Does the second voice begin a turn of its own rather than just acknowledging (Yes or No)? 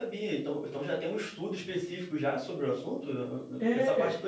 Yes